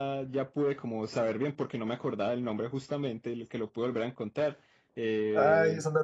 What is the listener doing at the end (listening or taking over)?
taking over